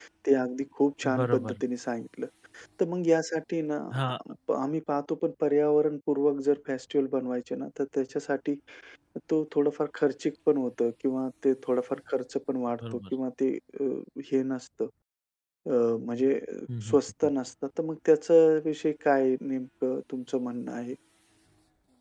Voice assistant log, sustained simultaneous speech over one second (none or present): none